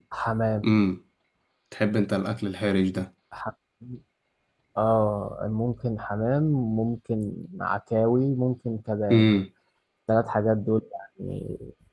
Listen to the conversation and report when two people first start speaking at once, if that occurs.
none

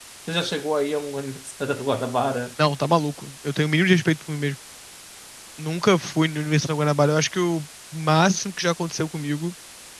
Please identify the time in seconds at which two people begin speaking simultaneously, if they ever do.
none

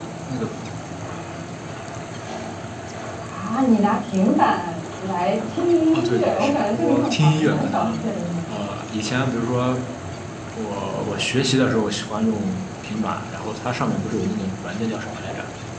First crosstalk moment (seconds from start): 6 s

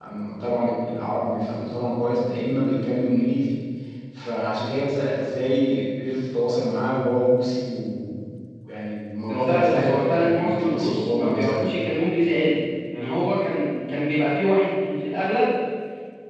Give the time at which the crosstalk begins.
9 s

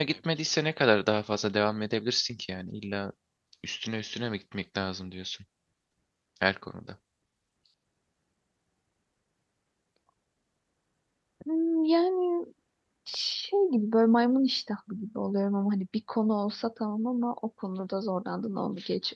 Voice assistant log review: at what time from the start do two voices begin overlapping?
none

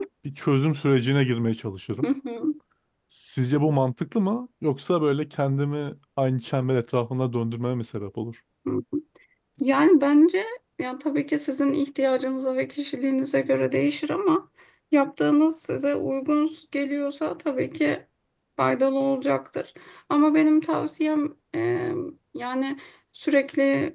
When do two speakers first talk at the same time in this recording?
none

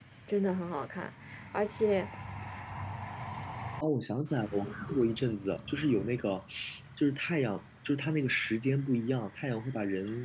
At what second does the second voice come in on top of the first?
none

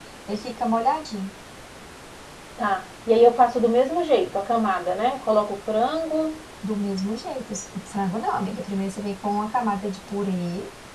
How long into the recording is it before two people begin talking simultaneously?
none

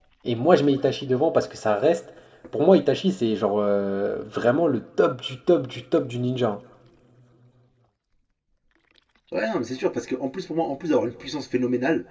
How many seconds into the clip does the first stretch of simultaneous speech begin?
none

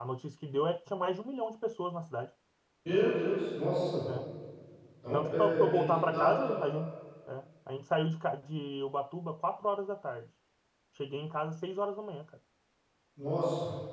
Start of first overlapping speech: 5 s

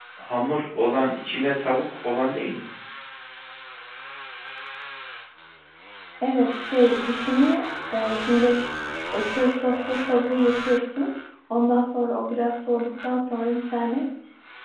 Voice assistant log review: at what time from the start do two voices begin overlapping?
none

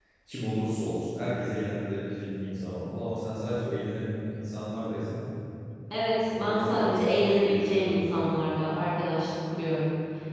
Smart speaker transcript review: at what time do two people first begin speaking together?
6 s

